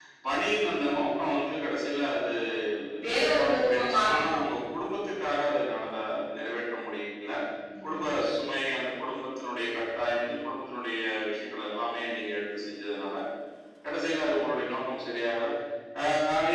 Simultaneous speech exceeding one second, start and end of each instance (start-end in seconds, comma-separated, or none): 3.0-4.2